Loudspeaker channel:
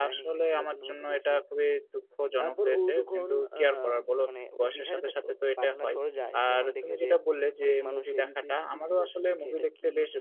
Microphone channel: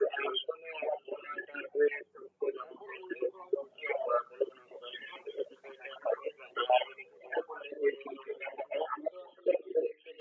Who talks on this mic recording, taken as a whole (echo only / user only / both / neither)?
echo only